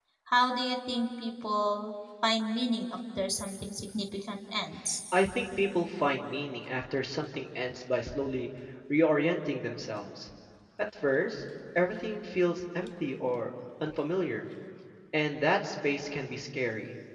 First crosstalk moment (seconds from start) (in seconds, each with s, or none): none